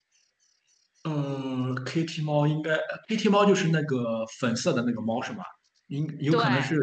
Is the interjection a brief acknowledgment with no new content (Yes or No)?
Yes